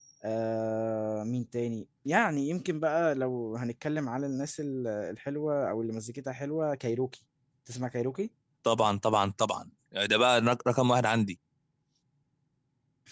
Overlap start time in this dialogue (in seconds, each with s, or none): none